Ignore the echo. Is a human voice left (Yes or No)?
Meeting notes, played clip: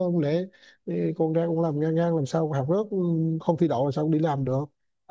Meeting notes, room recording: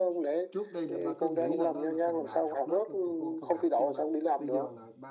Yes